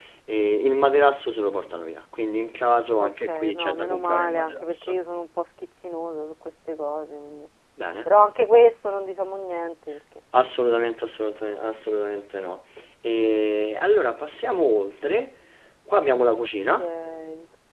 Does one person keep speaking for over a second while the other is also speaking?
Yes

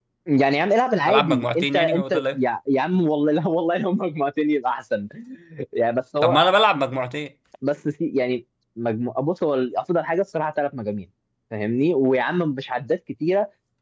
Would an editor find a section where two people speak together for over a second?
Yes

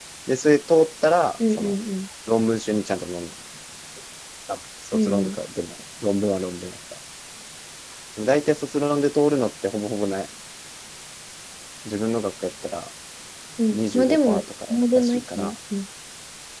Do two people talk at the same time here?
Yes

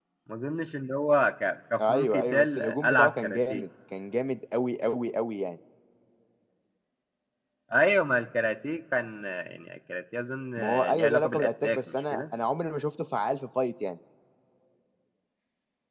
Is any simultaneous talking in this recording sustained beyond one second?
Yes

